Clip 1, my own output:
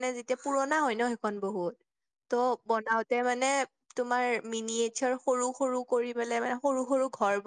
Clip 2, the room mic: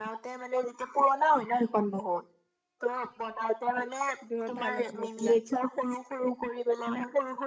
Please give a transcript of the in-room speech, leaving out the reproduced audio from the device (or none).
বহুত ভাল আছিল এইবিলাক